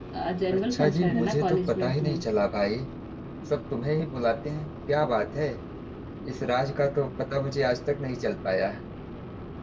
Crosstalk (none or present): present